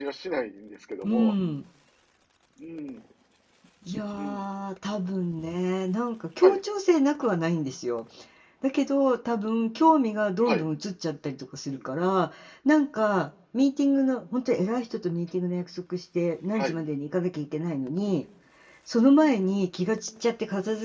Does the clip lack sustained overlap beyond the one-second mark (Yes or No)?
Yes